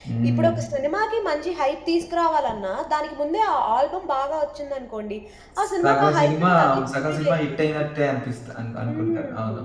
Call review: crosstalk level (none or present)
present